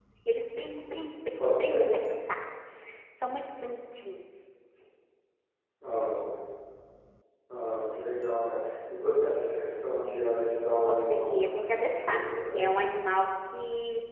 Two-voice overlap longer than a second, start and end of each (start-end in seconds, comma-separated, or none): 10.9-12.9